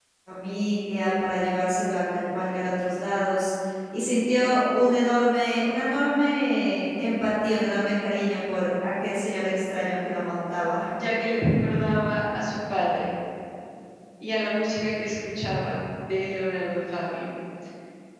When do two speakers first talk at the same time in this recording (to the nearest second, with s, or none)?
none